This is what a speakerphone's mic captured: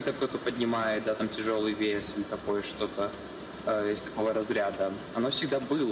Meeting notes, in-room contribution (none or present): none